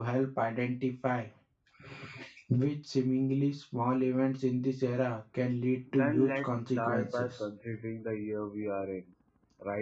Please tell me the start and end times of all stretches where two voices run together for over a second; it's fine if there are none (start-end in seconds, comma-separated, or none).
5.9-7.4